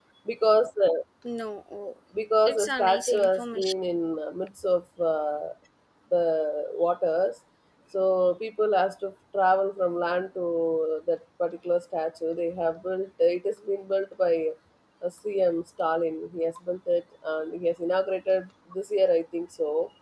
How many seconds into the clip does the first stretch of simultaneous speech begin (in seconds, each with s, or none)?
2.4 s